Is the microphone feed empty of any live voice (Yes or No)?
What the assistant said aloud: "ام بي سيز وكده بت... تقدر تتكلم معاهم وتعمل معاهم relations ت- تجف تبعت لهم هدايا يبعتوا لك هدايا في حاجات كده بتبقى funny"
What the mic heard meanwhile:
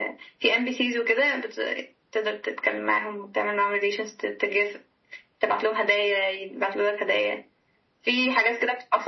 Yes